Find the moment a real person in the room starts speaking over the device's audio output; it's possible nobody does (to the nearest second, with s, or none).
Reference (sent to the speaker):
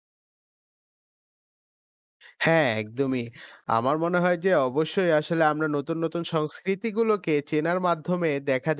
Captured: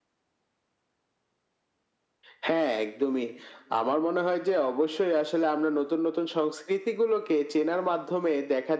none